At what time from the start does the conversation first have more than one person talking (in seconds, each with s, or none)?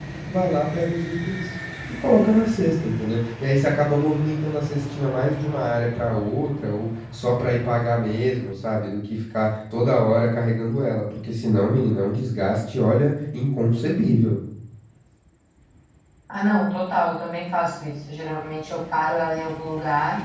none